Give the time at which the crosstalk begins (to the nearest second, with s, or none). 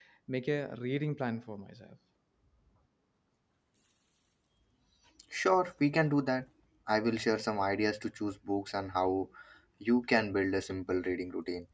none